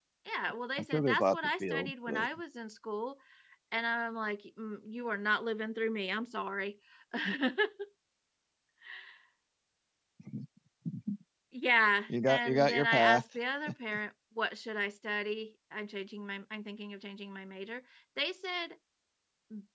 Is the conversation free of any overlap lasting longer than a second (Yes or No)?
No